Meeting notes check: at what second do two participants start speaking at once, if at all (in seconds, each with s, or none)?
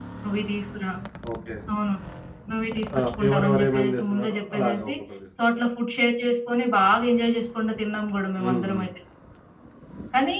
3.0 s